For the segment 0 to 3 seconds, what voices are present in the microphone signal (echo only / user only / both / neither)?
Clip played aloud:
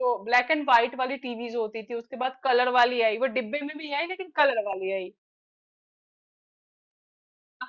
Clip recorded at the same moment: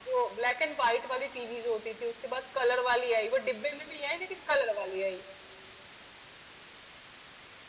echo only